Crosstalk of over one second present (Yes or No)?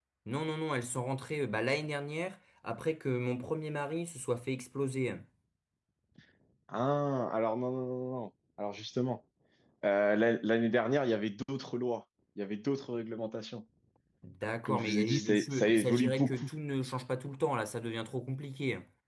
Yes